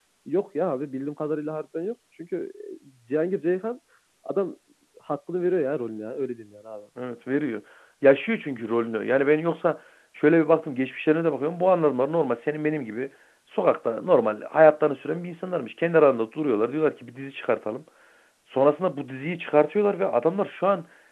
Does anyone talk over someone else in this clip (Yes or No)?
No